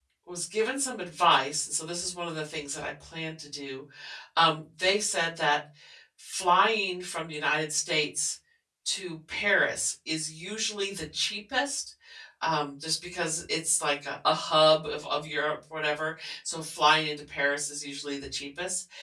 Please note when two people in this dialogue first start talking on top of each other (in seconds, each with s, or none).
none